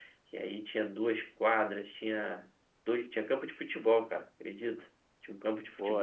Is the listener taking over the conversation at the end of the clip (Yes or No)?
Yes